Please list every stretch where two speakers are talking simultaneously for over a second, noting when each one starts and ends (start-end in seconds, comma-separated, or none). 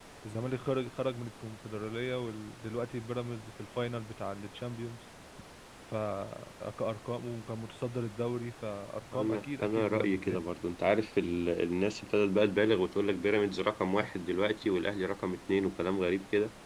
9.1-10.4